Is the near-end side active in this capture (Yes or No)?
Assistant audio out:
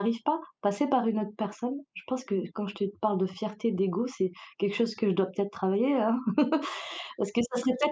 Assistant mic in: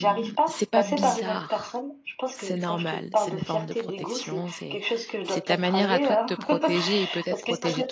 Yes